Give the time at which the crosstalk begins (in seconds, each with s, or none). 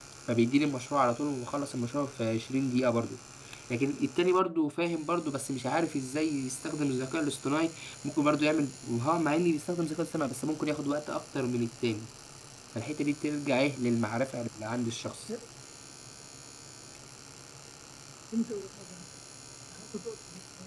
none